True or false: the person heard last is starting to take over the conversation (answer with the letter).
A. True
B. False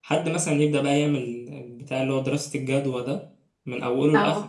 B